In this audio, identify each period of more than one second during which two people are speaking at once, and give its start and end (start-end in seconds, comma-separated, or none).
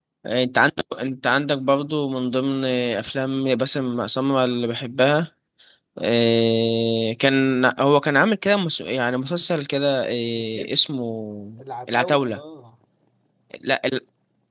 none